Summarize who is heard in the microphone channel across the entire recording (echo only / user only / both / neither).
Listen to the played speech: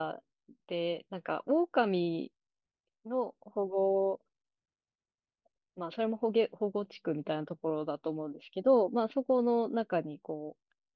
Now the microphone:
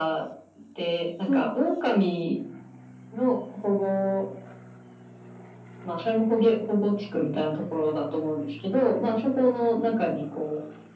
both